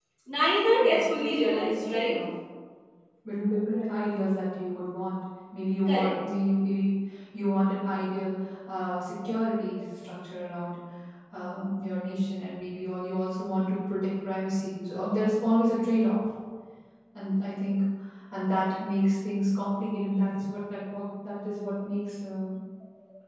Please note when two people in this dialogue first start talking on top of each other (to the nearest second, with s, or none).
1 s